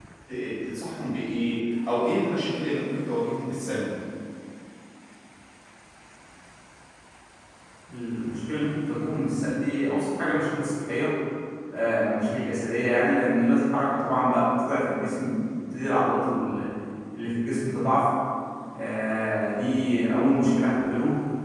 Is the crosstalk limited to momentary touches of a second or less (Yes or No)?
Yes